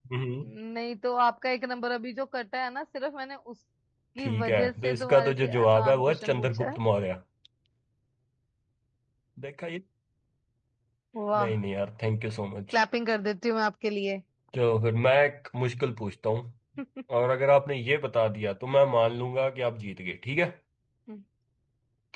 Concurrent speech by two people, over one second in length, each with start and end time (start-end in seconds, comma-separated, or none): 4.2-6.8